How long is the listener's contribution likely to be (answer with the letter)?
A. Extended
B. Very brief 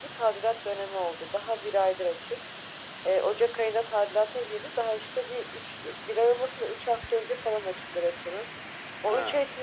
B